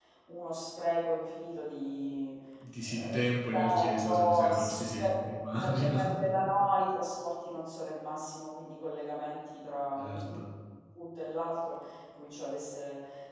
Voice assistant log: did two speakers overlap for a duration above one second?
Yes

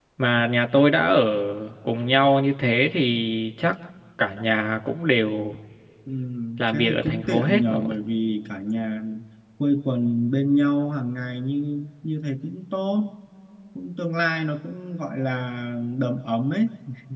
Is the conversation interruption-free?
No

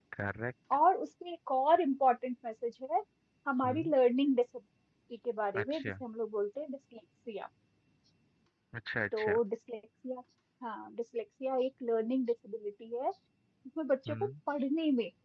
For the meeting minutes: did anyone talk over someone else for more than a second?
No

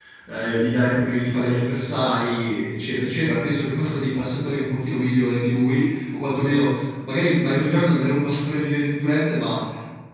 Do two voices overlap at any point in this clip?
No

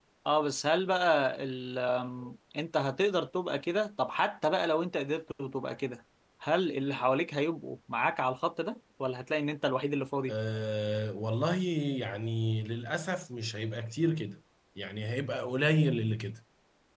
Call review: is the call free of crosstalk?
Yes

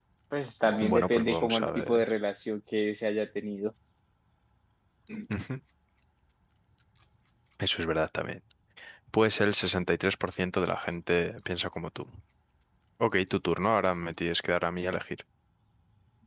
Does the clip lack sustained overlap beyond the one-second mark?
No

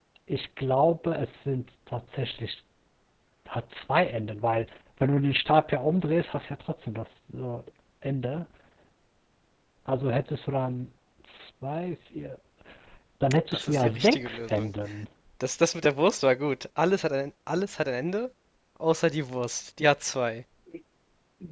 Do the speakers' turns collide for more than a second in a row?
Yes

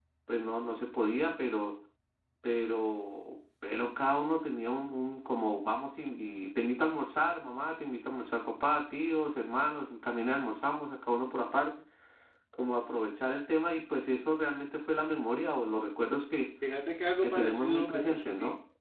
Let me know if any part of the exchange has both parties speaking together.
Yes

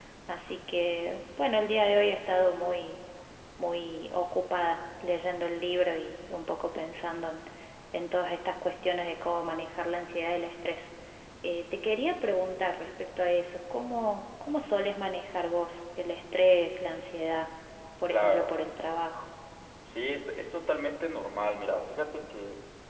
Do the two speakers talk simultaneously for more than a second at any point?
No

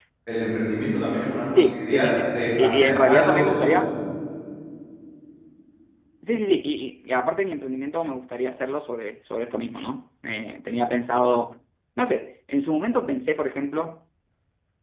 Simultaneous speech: Yes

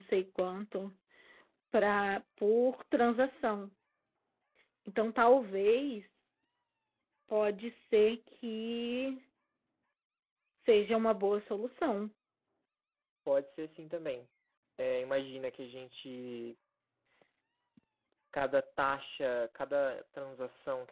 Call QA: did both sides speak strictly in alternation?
Yes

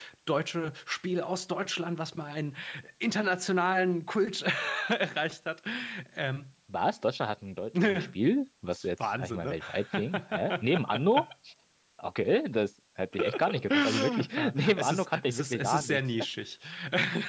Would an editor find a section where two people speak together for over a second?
Yes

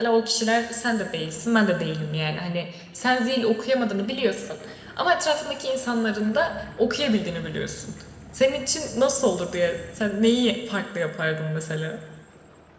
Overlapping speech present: No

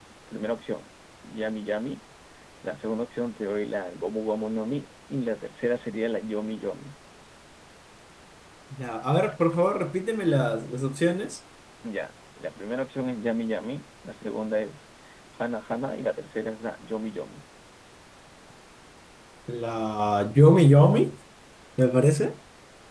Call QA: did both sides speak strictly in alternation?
Yes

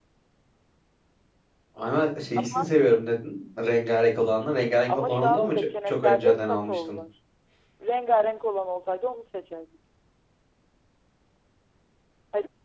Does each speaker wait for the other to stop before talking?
No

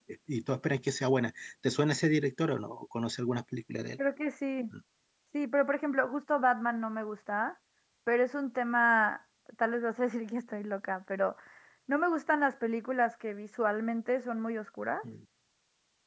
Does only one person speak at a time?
Yes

